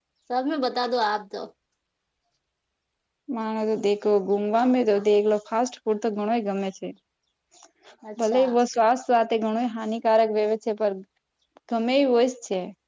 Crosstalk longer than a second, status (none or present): none